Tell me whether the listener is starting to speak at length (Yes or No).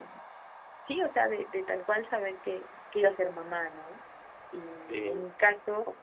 No